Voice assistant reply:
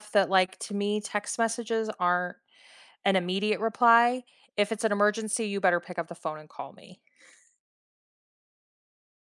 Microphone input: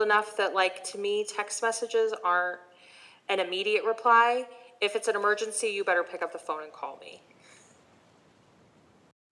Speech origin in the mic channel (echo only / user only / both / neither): echo only